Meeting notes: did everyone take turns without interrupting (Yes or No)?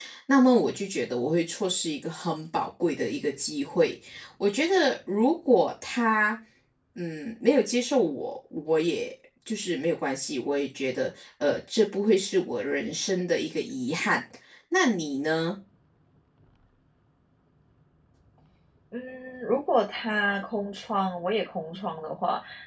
Yes